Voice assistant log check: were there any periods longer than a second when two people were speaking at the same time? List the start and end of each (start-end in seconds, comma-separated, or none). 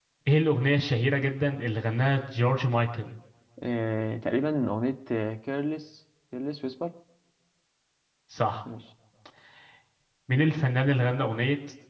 none